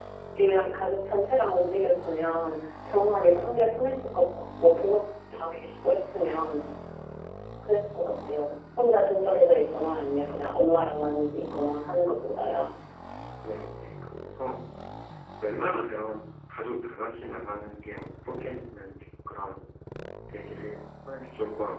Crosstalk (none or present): none